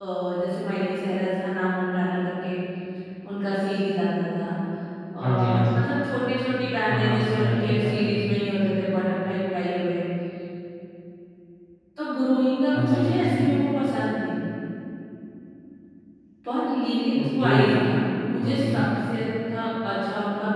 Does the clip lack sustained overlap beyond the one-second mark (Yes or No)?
No